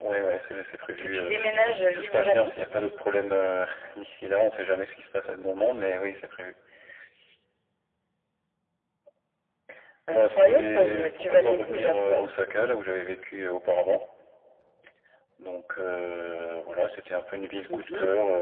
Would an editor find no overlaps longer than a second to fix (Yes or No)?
No